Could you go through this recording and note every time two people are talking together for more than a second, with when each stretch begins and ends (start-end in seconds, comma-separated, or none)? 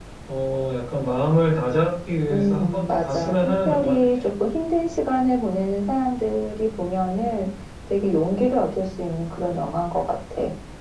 2.3-4.2